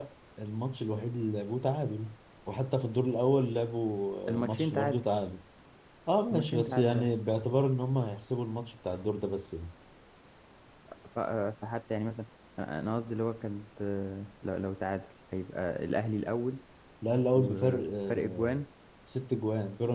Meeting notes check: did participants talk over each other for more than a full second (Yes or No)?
Yes